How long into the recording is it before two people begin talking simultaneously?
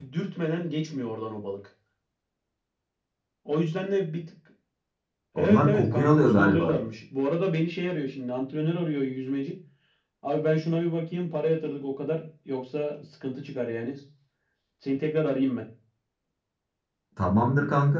5.4 s

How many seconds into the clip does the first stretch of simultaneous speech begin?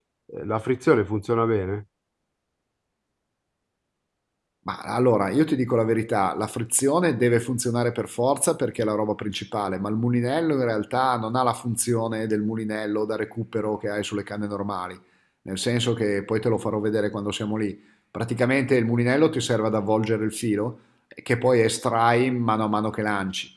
none

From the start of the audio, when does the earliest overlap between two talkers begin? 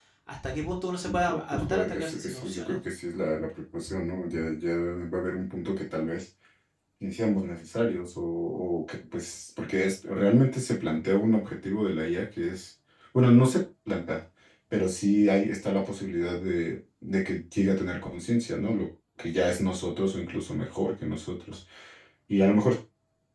1.1 s

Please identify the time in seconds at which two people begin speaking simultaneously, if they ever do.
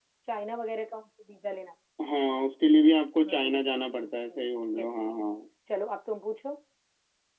3.2 s

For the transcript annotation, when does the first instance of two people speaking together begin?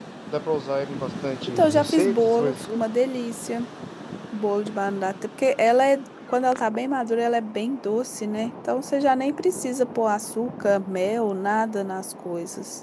1.5 s

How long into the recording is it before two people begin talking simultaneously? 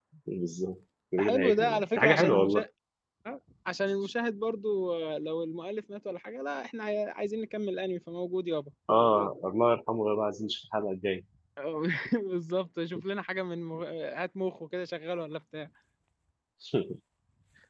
1.2 s

